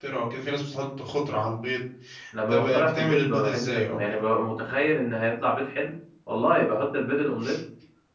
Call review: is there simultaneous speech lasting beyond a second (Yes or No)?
Yes